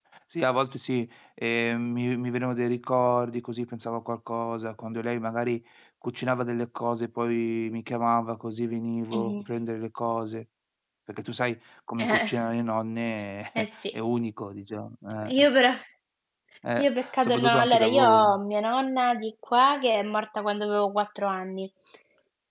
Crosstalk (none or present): present